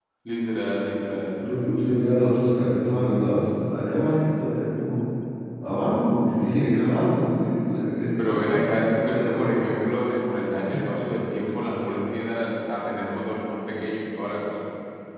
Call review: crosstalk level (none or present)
present